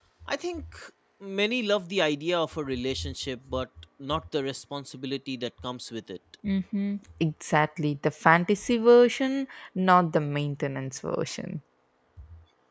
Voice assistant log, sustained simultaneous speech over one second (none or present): none